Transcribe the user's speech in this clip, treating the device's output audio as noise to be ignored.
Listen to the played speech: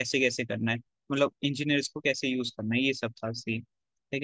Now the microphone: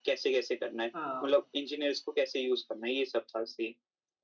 हाँ

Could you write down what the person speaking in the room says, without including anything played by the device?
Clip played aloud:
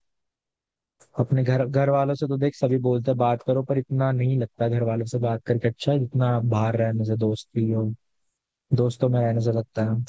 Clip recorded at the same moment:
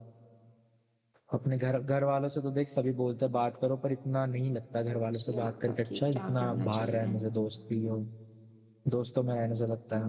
समझ नहीं आता कि क्या करना चाहिए

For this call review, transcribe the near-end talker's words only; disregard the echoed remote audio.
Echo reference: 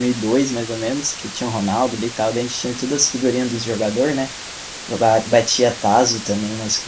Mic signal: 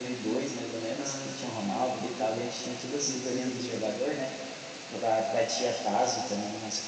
Ah, eu não tinha jogo não, não, não teve videogame.

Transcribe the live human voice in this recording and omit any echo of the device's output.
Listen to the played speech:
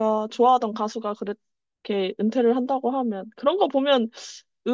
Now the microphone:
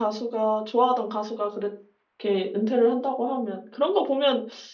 none

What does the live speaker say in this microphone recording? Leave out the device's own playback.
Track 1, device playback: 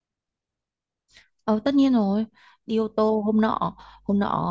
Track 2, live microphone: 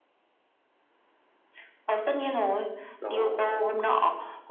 đó

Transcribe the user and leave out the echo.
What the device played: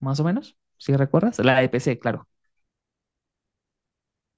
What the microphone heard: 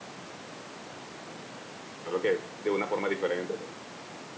Solo que de una forma diferente, pero

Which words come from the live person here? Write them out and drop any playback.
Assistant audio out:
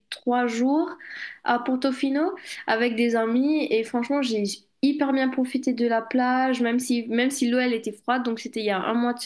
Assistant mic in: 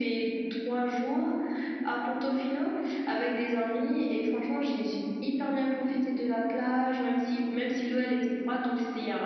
none

